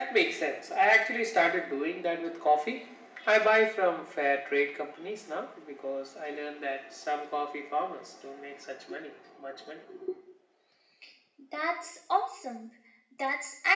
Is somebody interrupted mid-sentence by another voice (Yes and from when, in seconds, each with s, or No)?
No